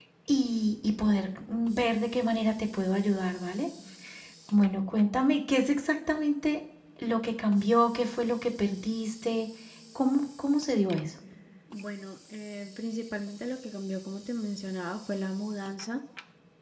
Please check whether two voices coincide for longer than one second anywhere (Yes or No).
No